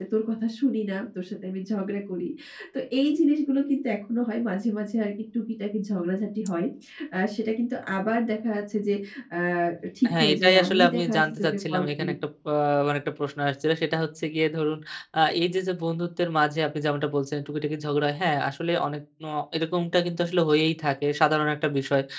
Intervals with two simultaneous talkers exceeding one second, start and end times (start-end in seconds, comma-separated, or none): 10.1-12.1